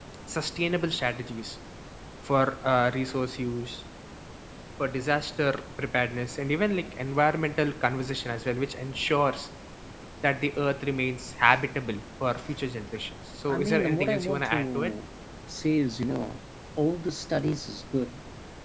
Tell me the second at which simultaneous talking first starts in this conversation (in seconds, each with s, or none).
13.5 s